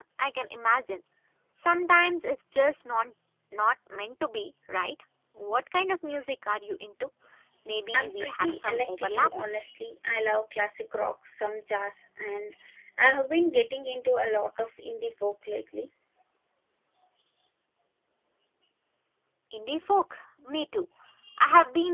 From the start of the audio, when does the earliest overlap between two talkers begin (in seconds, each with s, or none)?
7.9 s